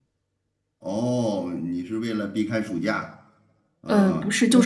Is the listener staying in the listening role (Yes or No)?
No